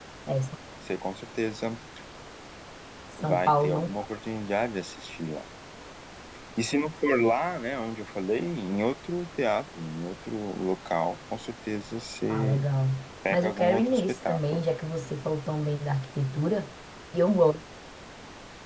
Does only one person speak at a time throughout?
No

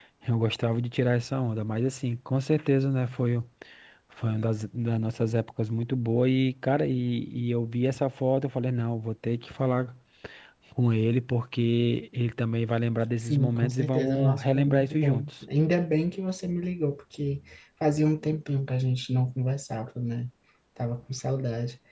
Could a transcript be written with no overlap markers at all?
No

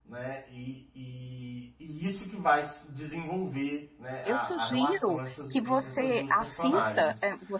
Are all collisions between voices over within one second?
No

